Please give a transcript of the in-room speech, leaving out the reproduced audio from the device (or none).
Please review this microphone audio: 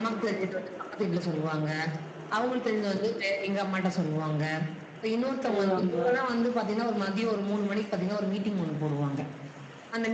ஆ, ஆமா.